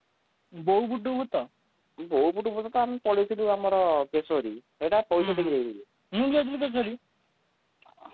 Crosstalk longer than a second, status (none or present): none